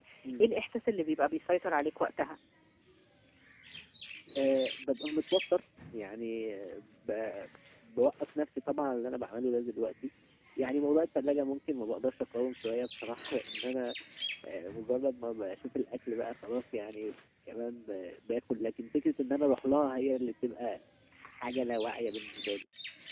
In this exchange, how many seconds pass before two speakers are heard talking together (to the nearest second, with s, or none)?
none